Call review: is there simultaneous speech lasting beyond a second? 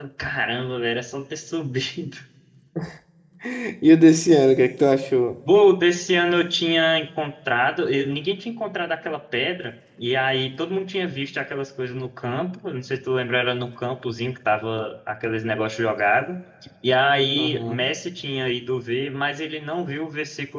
No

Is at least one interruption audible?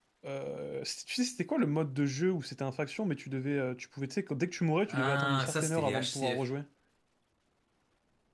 Yes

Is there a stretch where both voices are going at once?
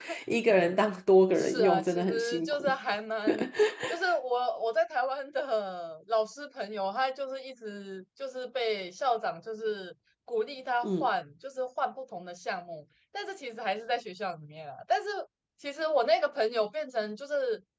Yes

